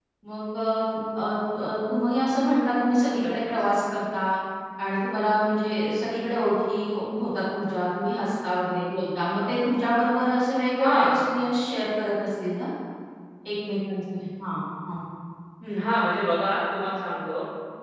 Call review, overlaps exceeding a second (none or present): none